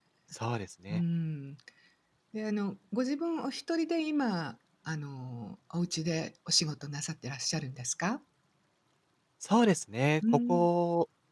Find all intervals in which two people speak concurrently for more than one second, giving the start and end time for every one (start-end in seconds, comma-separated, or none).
none